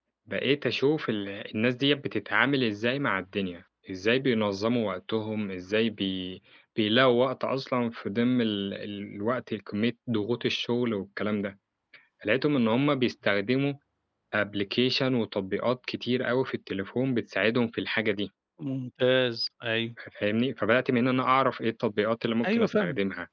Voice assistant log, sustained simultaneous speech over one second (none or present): none